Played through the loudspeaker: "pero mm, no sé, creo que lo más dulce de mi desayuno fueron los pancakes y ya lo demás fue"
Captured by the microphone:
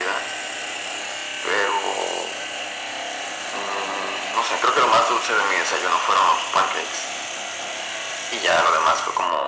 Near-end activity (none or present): none